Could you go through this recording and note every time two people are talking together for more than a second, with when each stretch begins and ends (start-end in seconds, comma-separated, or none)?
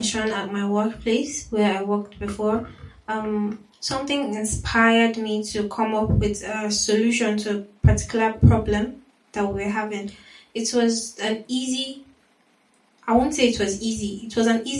none